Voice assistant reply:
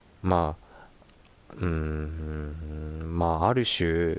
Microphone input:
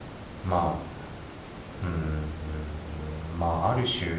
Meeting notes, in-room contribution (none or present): none